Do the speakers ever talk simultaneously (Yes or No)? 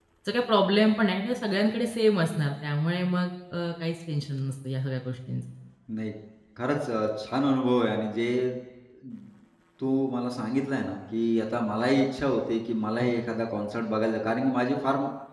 No